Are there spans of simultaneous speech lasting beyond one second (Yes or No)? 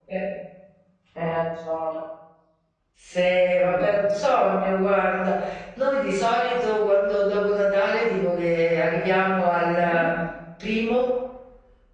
No